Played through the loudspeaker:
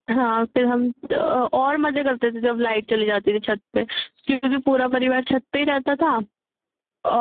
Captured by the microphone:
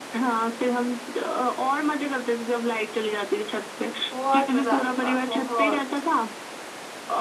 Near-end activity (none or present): present